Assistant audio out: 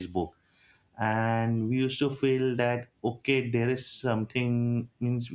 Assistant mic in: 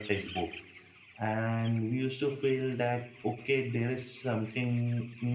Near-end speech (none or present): none